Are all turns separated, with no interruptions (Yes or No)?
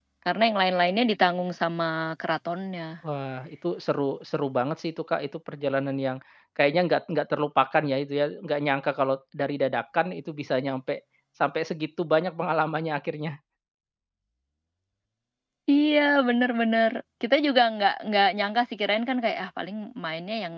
Yes